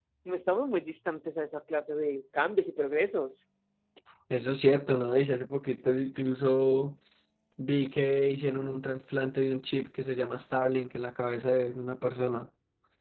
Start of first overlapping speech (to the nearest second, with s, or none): none